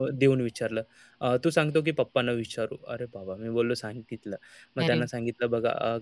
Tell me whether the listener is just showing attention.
Yes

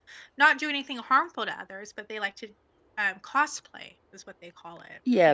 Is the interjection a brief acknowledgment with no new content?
No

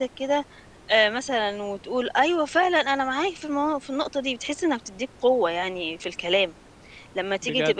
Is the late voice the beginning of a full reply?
No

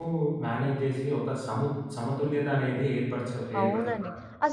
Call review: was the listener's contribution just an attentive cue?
No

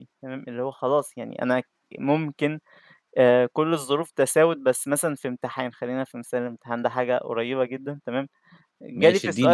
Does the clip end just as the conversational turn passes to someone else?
Yes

